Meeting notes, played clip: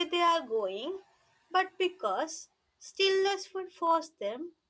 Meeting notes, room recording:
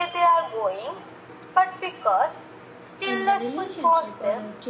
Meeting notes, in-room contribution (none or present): present